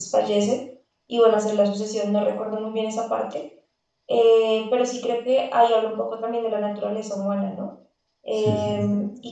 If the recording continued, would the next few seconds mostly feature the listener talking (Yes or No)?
No